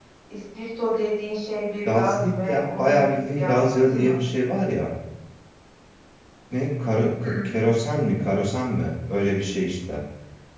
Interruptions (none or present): present